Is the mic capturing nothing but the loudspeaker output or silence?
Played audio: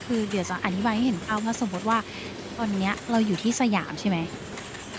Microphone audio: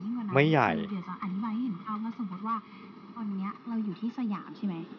No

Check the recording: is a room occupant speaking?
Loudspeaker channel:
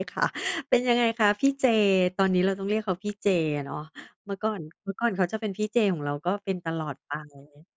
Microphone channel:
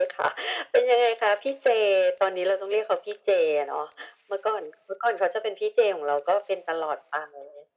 No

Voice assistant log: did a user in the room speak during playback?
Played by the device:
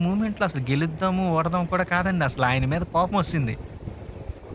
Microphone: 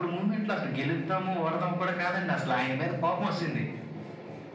No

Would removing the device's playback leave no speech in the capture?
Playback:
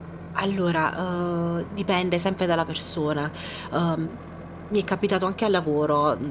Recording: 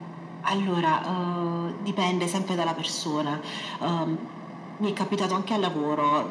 Yes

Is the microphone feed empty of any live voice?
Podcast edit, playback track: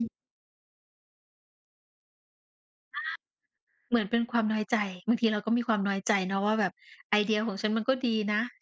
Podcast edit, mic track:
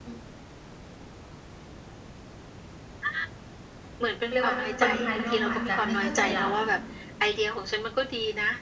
No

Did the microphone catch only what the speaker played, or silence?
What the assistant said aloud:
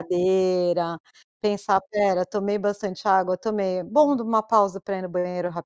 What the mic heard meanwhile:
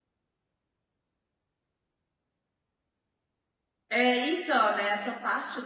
No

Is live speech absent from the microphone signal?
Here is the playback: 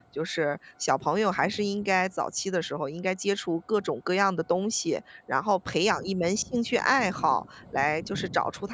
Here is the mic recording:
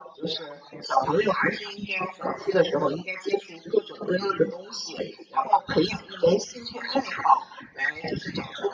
Yes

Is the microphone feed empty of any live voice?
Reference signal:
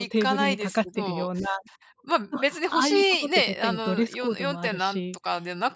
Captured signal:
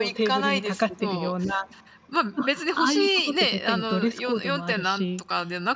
Yes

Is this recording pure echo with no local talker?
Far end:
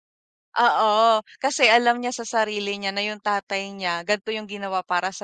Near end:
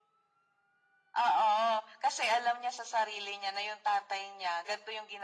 Yes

